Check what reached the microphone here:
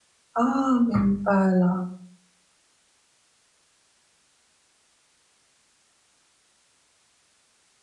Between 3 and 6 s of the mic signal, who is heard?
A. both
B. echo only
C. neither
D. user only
C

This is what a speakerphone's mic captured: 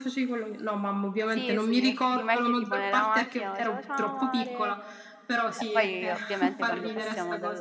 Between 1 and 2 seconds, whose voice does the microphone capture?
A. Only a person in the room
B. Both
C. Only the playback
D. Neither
B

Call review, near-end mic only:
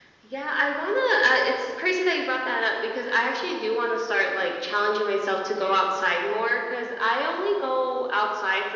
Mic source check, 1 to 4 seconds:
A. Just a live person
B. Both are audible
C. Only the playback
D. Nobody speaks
C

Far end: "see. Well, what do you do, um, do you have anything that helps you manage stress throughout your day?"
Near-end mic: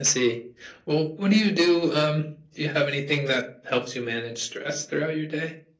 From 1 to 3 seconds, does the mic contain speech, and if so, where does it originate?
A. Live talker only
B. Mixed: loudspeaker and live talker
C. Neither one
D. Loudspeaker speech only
D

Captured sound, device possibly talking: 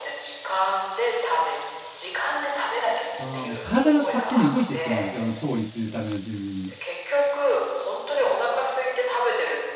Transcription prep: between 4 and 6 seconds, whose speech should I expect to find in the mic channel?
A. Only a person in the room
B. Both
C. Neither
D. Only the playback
B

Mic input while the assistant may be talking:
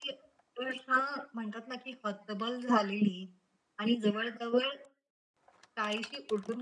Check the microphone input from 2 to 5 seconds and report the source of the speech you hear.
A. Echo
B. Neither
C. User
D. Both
A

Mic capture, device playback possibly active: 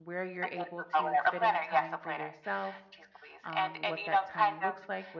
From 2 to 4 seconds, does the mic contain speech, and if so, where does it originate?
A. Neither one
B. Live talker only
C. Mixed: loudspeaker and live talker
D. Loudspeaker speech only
C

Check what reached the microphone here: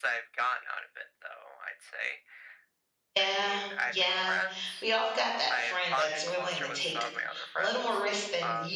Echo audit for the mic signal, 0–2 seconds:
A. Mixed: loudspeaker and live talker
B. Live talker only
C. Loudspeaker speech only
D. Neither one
C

